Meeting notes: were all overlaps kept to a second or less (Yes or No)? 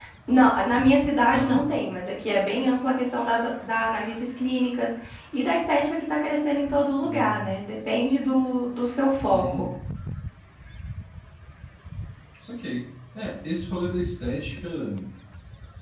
Yes